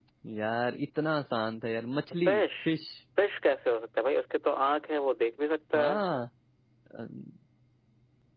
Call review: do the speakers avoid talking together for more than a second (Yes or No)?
Yes